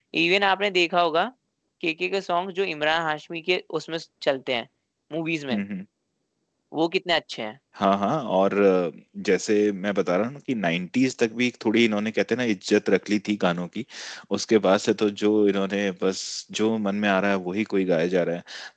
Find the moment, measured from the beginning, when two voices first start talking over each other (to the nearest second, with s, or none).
none